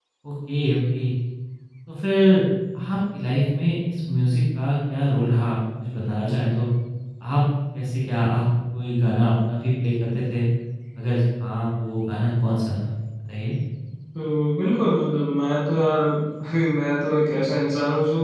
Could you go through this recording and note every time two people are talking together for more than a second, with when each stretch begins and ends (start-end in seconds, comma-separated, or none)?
none